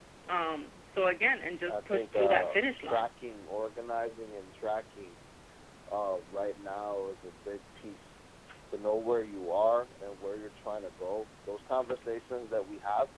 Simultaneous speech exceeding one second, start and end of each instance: 1.7-3.1

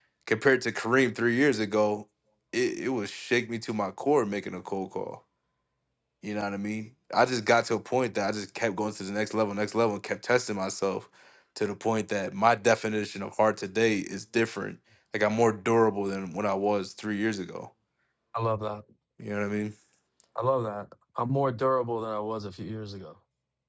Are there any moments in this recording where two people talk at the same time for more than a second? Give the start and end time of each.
none

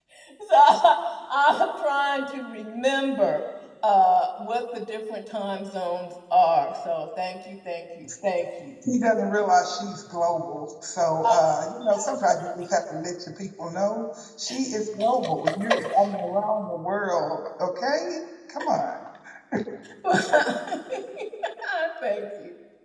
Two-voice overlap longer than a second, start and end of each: none

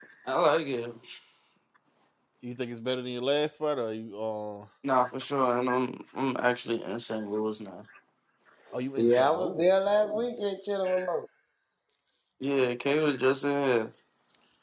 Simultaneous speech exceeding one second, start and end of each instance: 9.0-10.2

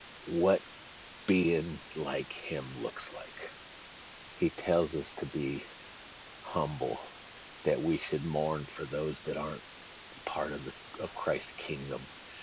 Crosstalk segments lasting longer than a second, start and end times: none

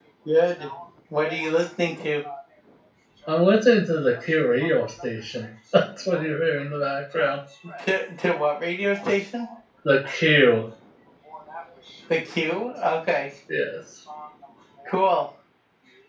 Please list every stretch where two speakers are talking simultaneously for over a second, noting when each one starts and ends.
none

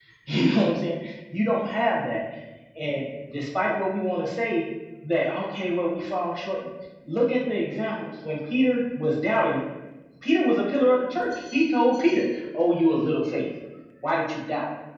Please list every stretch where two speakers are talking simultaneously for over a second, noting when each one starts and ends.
none

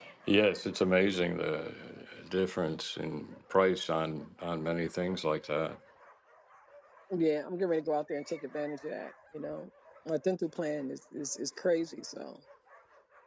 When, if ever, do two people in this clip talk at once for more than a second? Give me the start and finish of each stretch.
none

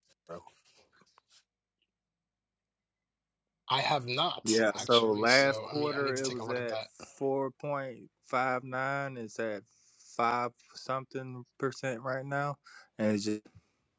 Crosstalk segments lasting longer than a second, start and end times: 4.5-6.8

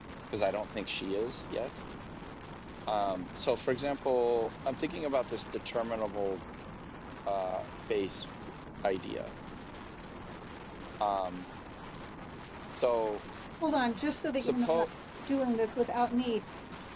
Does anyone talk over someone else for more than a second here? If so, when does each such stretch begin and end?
none

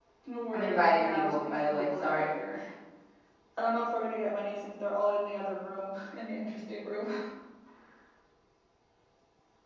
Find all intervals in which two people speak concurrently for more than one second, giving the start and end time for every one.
0.5-2.3

